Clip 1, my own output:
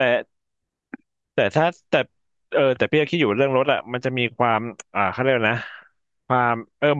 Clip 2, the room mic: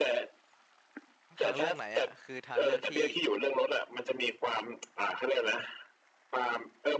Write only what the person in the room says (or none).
ทางเลือกไหนอ่ะคือทางเลือกที่